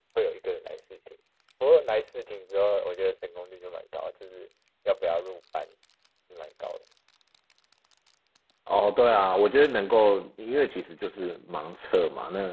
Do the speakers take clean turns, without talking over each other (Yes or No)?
Yes